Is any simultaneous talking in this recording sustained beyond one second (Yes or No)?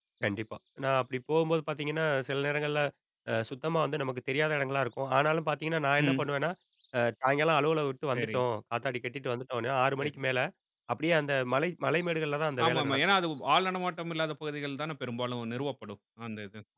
No